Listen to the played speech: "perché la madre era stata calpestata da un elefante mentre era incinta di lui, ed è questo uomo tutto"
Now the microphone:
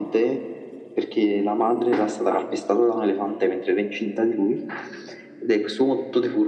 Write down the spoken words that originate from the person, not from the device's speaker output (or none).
none